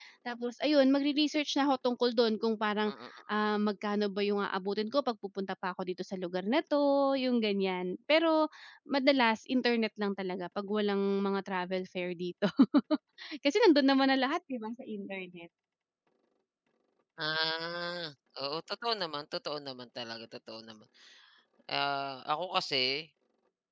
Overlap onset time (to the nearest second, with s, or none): none